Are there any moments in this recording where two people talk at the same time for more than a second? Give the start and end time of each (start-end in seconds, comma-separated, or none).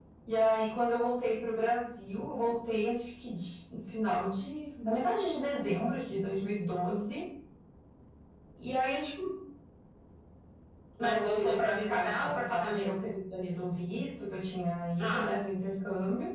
11.0-13.0